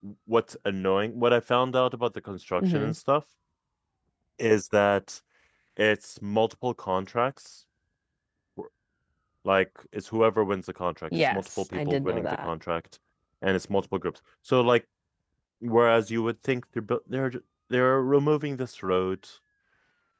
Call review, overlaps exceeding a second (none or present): present